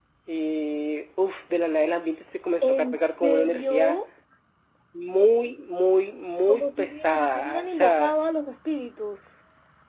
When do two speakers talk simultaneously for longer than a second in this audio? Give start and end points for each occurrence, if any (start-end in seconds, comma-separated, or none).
2.6-4.0, 6.5-8.1